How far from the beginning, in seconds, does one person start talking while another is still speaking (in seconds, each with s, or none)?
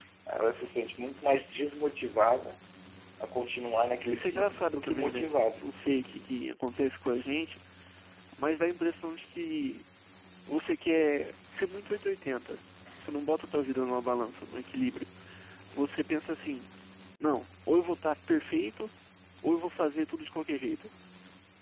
4.1 s